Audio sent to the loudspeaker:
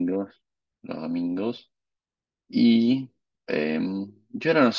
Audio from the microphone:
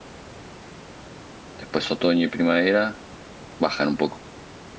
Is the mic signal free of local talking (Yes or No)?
No